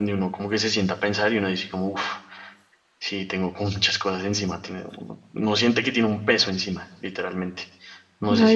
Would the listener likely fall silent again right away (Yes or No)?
No